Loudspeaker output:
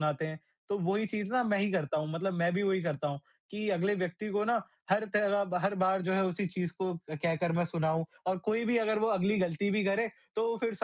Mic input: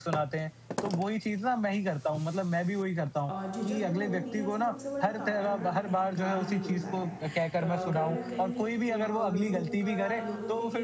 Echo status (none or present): present